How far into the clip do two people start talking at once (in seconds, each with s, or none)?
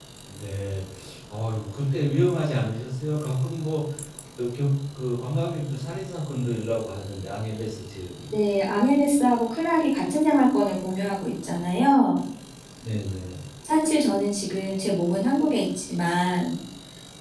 none